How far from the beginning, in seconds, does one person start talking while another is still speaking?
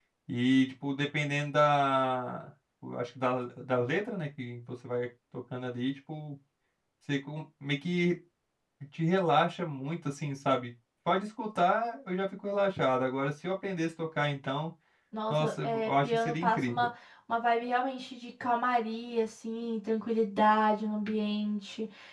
15 s

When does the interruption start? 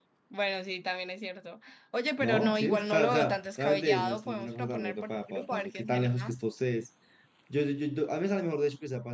2 s

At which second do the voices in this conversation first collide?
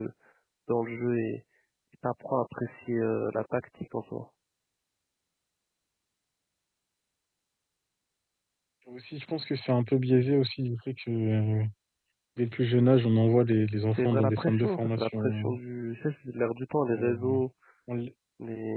14 s

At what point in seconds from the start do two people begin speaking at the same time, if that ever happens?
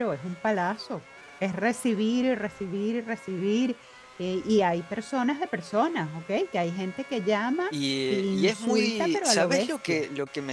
8 s

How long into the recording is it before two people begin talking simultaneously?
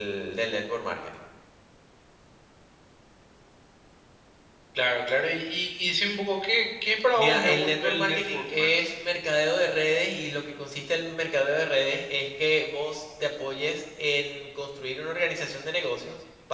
7 s

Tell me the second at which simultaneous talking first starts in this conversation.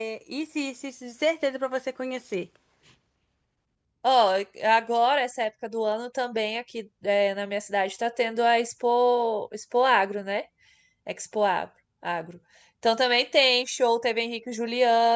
none

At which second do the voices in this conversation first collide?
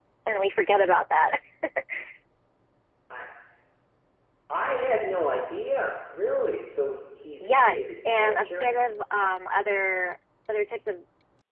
7 s

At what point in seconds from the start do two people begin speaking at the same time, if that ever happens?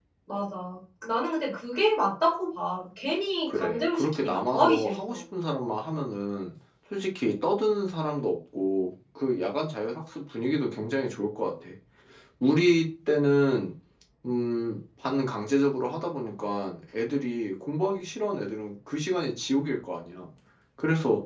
3 s

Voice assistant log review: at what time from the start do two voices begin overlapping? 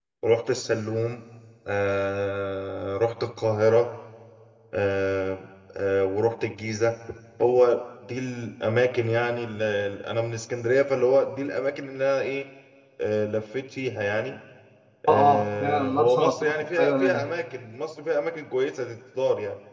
15 s

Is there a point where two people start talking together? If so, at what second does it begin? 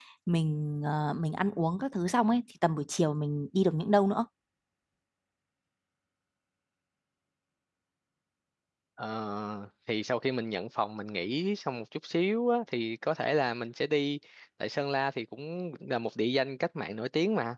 none

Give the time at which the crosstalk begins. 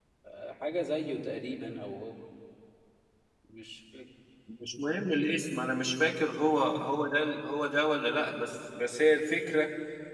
none

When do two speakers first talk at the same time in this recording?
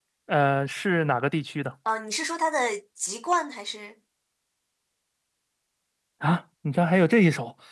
none

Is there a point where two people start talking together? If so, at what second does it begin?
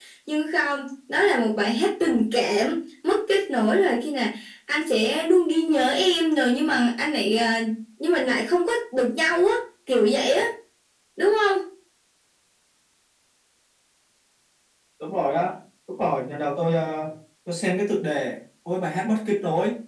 none

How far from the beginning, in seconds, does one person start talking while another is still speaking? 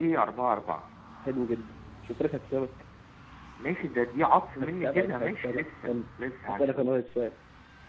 5 s

